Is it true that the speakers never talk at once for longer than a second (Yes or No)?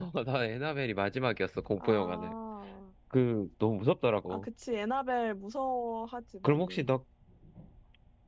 Yes